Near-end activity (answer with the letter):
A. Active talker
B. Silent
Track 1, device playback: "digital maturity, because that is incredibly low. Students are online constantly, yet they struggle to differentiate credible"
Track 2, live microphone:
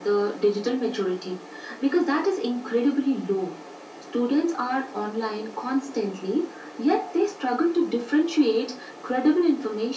B